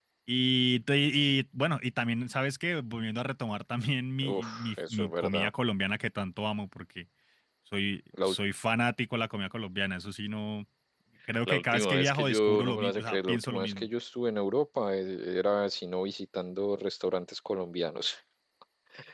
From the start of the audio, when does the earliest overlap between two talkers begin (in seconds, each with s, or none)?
4.3 s